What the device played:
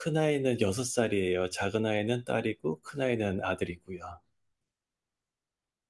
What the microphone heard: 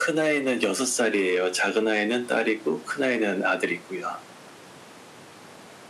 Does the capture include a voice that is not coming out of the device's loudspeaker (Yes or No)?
No